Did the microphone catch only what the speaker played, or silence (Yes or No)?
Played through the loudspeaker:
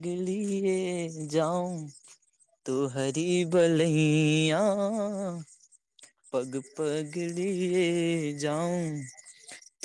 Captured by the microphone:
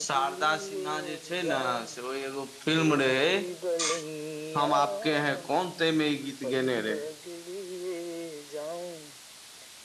No